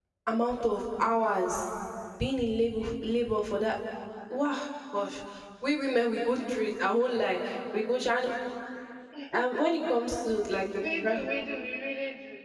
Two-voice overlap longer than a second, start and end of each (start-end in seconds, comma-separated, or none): none